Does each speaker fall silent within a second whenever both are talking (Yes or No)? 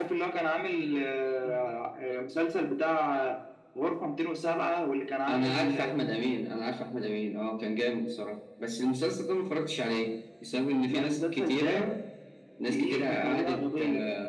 No